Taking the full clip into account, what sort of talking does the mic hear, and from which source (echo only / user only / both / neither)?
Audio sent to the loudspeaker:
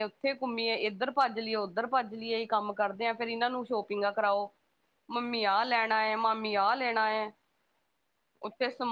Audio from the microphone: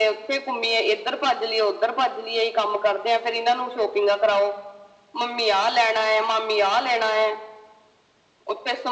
echo only